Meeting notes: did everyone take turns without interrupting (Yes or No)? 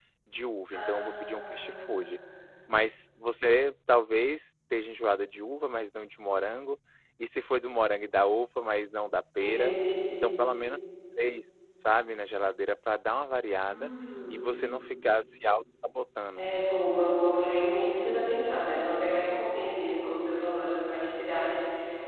No